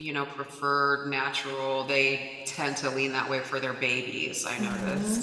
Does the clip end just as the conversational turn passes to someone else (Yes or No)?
Yes